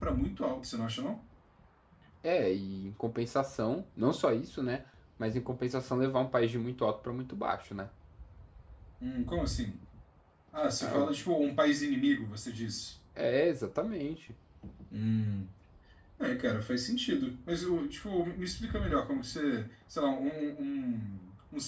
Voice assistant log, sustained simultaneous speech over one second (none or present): none